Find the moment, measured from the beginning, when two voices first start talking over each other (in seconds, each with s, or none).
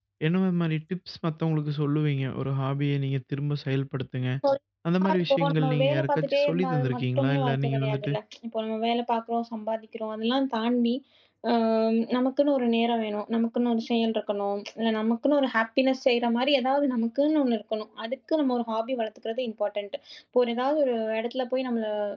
5.2 s